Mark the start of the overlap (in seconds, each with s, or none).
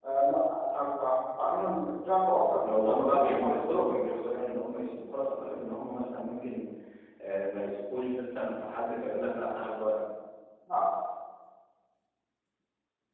2.6 s